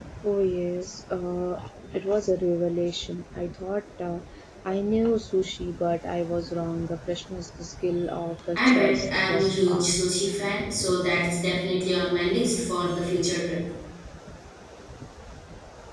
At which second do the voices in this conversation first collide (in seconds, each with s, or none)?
8.6 s